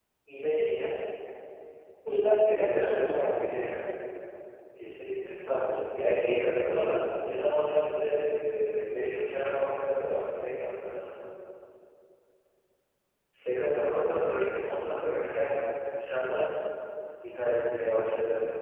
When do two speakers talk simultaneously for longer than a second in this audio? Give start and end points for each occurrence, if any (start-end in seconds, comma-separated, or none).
2.5-3.7